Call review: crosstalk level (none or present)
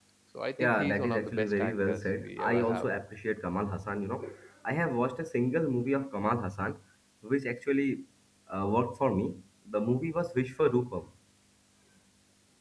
present